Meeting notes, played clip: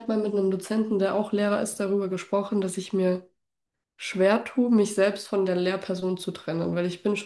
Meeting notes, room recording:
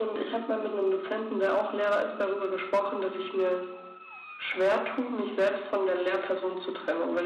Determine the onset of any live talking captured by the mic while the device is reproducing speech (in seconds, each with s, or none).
none